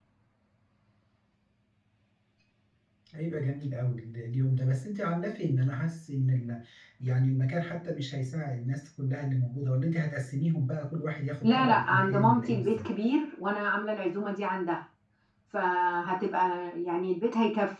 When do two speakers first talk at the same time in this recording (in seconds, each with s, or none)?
11.4 s